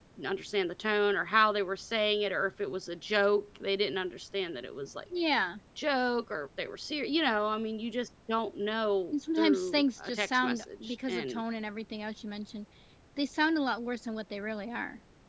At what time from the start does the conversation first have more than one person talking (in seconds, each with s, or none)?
9.1 s